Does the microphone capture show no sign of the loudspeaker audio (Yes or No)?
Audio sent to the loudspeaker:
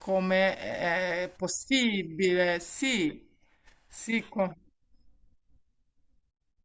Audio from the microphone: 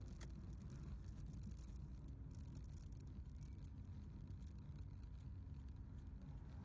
Yes